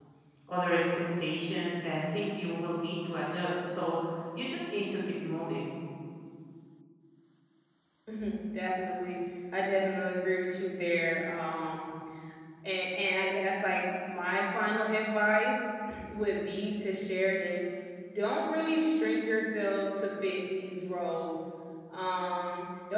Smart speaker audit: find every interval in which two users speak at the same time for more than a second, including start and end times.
none

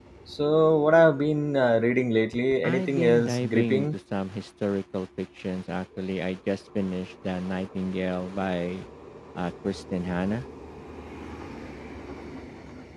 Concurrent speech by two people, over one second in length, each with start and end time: 2.6-3.9

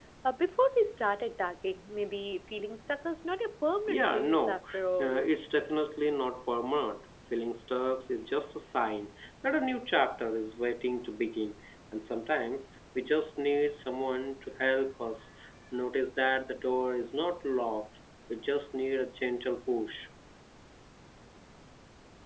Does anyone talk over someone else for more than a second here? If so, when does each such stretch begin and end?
3.9-5.2

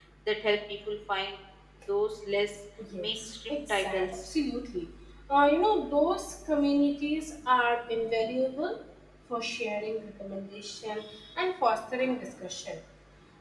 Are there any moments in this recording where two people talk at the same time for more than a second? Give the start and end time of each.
3.0-4.3

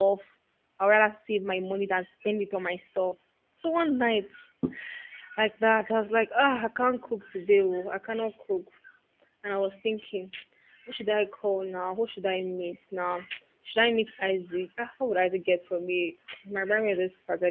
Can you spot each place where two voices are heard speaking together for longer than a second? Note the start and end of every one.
none

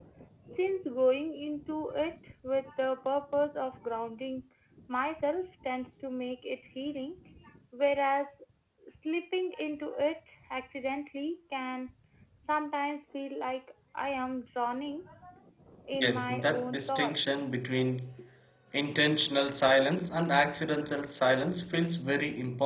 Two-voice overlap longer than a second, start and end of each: 15.9-17.4

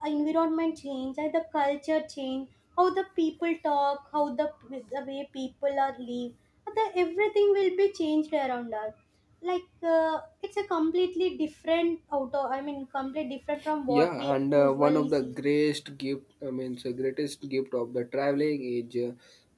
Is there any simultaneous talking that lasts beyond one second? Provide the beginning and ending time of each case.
13.9-15.3

